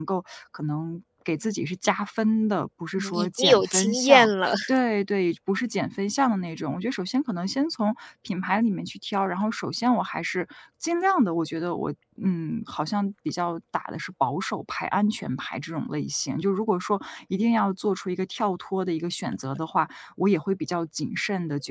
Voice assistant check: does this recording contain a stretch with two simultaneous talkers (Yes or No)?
Yes